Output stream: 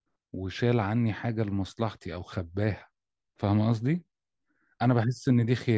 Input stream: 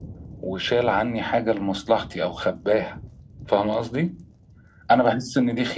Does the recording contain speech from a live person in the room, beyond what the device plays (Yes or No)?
No